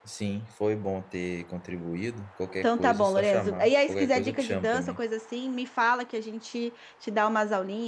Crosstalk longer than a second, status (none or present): present